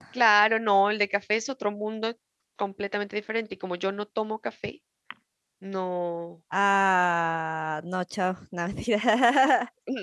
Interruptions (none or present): none